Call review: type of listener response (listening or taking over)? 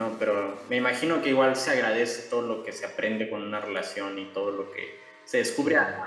listening